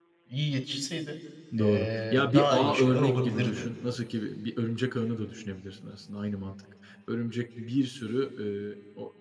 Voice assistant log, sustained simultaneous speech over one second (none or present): present